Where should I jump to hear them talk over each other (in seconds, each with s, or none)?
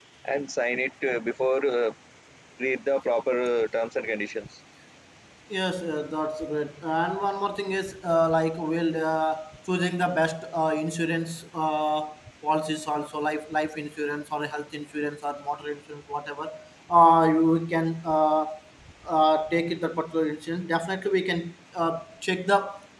none